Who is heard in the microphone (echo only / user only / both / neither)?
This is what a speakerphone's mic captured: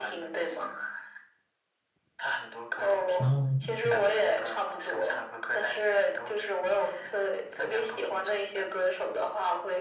both